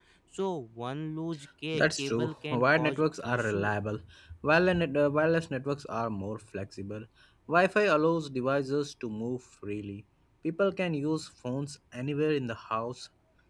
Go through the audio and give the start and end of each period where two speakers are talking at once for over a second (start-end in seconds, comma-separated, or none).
1.7-3.7